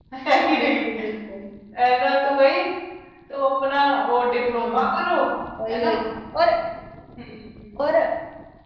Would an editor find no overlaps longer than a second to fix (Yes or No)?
Yes